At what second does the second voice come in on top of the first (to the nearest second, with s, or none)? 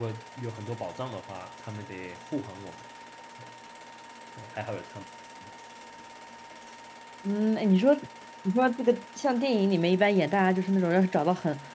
none